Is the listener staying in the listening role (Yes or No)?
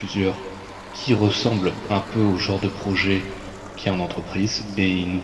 Yes